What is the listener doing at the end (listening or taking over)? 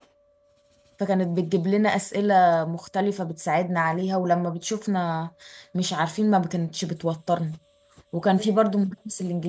listening